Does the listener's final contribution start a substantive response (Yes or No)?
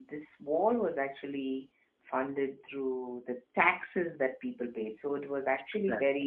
No